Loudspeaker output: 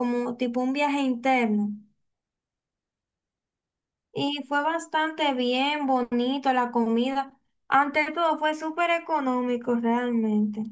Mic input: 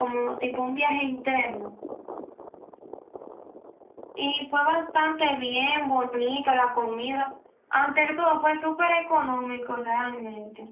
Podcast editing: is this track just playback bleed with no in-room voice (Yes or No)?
Yes